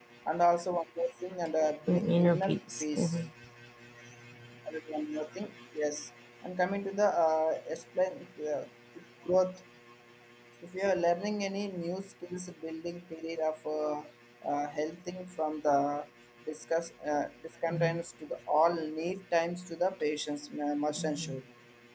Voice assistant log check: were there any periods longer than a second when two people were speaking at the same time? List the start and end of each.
1.9-3.2

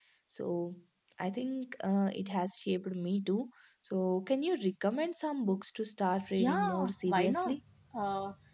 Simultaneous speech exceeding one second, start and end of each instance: 6.3-7.6

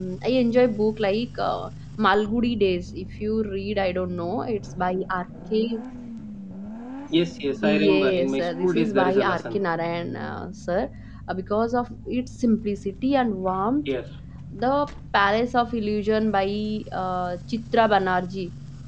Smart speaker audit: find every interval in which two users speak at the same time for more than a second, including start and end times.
7.6-9.6

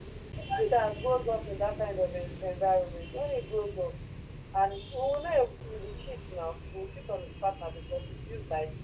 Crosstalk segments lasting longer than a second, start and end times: none

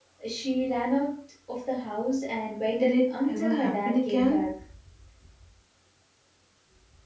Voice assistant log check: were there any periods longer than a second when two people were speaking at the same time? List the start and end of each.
2.8-4.5

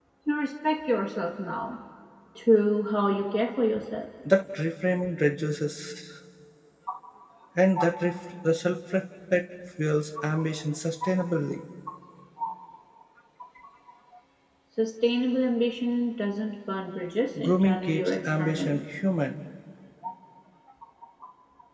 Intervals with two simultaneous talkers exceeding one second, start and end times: 17.4-18.8

